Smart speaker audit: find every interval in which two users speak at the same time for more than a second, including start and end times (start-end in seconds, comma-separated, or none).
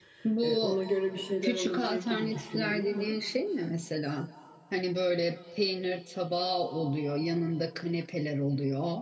1.4-3.2